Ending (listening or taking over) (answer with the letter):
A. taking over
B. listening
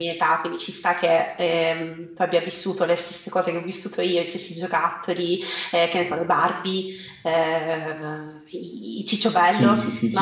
A